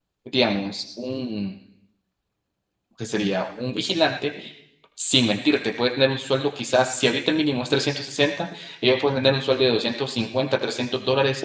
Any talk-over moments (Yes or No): No